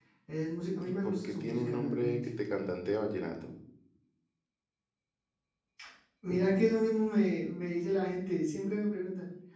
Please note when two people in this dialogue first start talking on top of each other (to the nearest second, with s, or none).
1 s